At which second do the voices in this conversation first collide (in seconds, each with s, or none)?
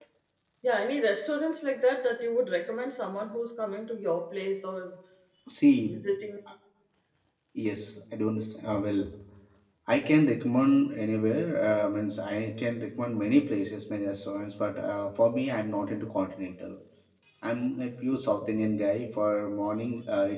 none